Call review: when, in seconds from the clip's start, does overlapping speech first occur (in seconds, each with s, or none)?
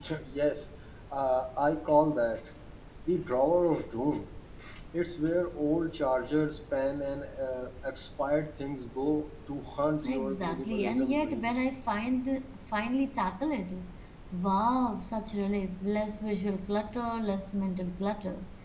10.1 s